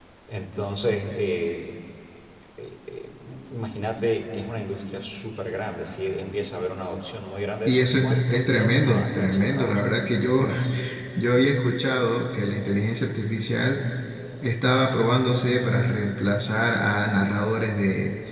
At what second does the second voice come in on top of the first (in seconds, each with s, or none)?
7.6 s